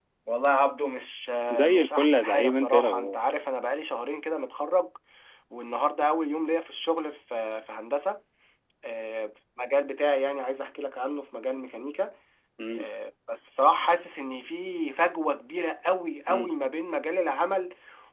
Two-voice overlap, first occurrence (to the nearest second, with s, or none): 2 s